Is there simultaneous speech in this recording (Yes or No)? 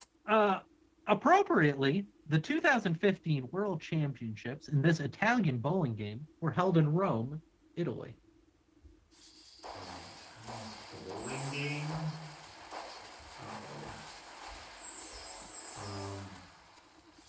No